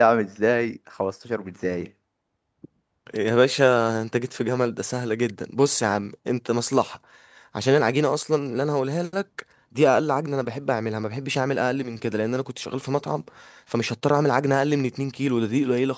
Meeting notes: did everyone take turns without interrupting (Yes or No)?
Yes